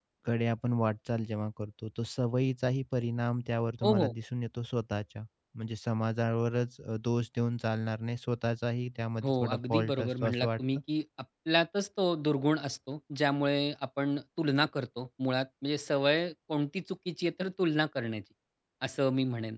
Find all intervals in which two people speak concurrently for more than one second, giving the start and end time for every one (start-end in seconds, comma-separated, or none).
9.2-10.6